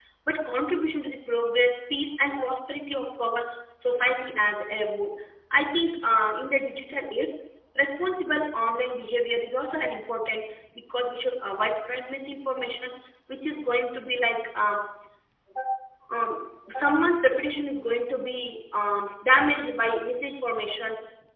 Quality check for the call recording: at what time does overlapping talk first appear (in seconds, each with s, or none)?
none